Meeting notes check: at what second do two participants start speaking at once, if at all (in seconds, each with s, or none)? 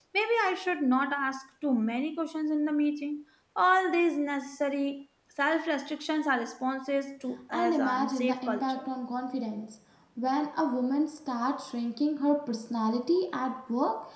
7.5 s